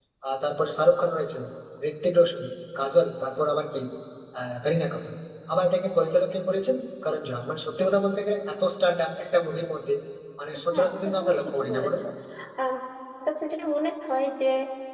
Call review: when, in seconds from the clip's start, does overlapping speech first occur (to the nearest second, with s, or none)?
11 s